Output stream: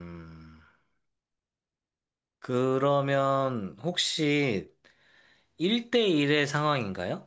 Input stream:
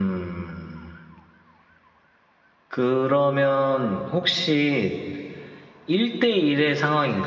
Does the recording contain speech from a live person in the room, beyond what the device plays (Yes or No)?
No